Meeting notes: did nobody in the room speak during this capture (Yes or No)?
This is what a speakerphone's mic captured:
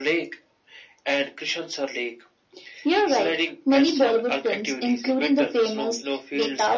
Yes